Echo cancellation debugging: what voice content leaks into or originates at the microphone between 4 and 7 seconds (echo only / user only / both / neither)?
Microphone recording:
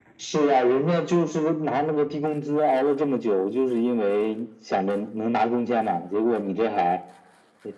echo only